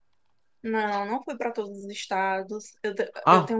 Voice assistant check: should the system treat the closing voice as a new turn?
Yes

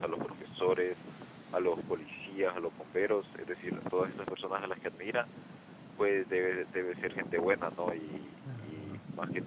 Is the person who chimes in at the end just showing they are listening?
Yes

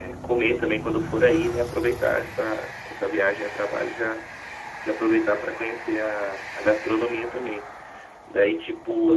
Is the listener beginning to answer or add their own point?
No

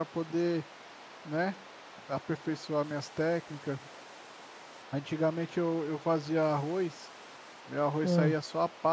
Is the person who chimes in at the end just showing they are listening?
Yes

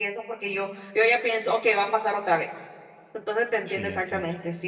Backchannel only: Yes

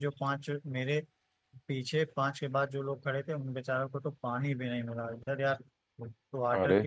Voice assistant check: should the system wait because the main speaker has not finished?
Yes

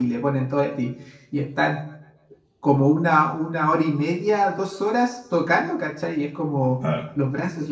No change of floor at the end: Yes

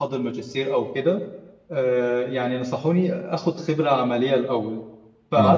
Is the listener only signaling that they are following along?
Yes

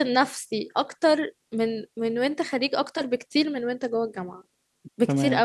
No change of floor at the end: No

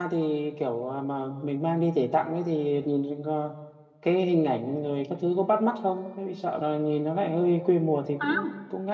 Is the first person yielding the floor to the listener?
Yes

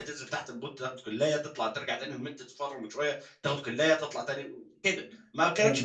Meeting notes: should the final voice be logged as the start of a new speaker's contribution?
No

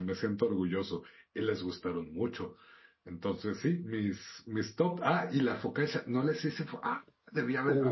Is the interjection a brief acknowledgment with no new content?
No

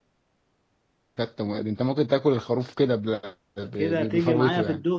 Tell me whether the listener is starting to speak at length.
Yes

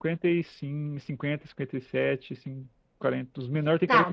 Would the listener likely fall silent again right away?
No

